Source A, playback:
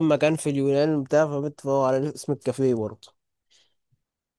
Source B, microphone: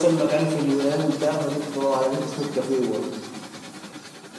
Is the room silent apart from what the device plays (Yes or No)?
Yes